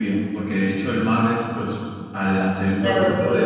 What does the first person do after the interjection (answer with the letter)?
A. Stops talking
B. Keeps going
A